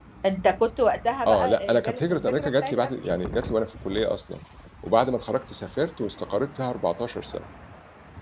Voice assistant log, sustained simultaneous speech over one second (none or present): present